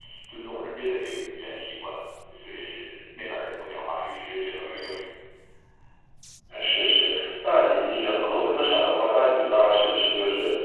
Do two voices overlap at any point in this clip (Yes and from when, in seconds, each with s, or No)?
No